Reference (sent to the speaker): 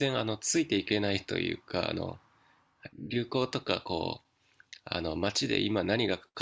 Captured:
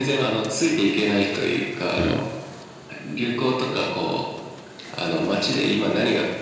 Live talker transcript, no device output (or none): う。うん。